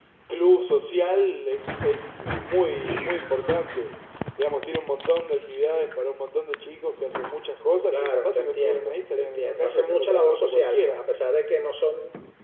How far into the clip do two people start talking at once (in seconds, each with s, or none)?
7.9 s